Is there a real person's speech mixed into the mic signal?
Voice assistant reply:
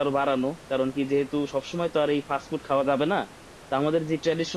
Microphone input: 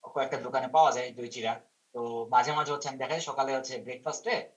Yes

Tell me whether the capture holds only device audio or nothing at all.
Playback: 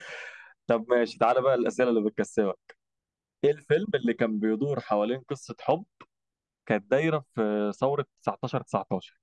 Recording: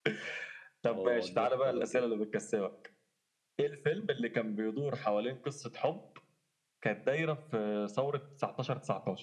No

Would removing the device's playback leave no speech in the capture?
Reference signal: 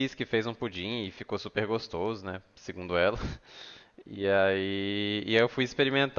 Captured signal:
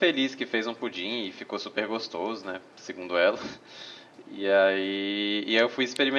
Yes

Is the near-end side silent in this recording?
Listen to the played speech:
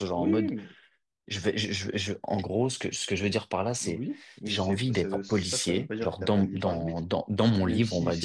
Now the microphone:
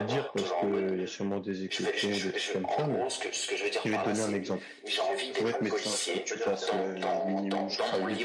No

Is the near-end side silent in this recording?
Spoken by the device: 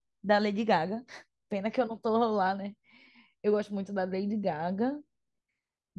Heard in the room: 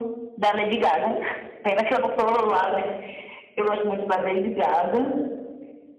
Yes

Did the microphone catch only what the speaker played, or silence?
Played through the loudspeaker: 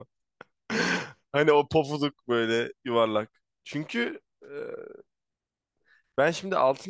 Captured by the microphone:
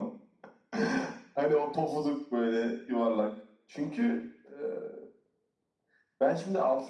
Yes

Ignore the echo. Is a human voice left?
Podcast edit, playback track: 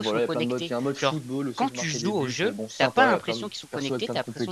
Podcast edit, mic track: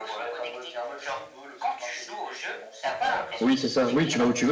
Yes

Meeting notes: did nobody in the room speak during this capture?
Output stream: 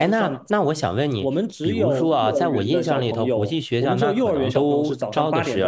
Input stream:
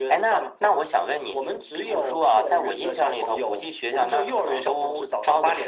Yes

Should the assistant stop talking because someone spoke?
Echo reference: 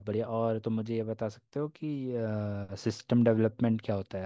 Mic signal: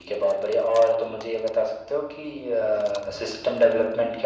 No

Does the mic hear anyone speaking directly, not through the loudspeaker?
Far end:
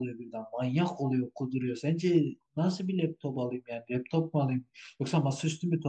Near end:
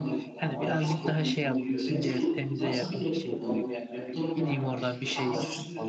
Yes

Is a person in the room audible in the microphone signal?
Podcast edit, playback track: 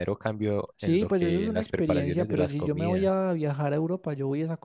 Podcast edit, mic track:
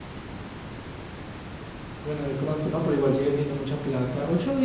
Yes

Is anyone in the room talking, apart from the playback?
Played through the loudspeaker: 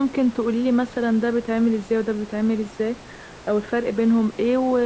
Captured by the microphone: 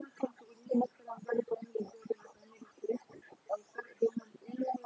No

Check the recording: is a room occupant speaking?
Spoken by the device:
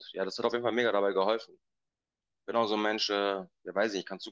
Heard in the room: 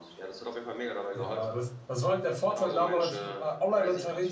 Yes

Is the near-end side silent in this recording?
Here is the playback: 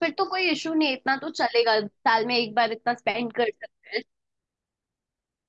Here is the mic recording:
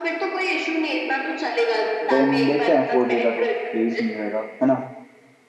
No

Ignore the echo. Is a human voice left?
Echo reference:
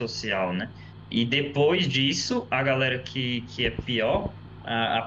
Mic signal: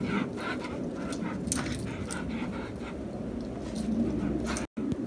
No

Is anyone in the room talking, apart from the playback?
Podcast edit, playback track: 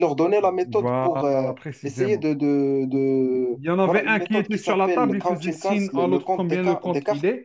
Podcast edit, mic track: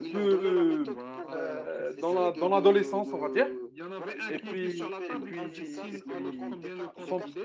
Yes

